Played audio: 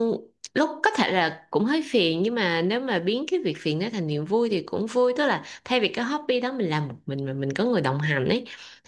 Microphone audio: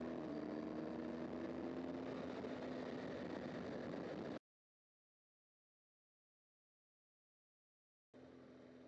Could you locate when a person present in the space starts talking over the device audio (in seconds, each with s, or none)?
none